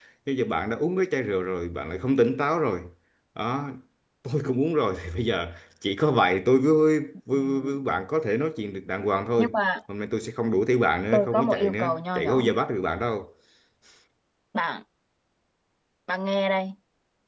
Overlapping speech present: Yes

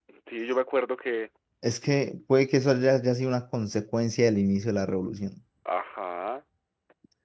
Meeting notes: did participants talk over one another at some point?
No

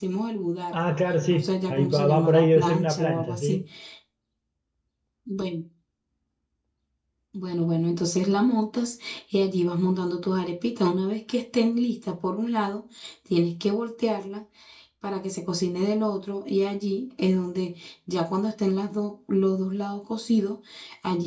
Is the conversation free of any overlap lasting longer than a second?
No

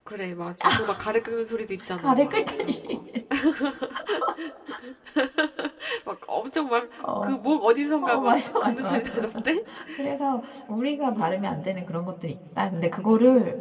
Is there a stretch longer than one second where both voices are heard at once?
Yes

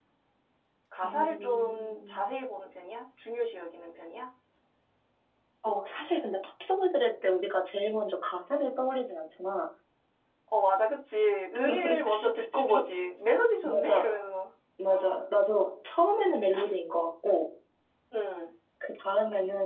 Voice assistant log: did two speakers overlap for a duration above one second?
Yes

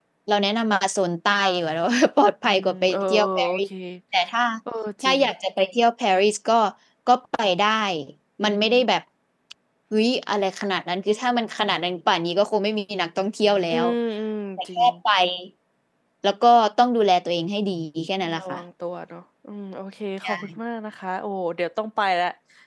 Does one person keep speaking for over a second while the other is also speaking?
Yes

